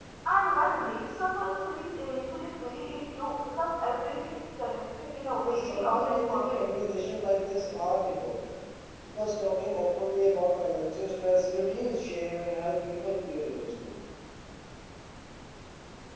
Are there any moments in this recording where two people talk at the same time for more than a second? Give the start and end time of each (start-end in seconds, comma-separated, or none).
5.4-6.6